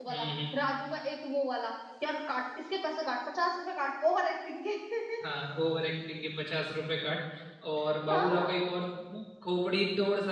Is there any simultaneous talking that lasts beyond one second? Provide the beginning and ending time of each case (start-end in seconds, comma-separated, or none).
none